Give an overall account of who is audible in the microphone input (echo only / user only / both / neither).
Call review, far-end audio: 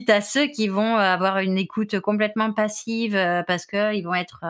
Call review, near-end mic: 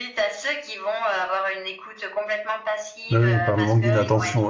both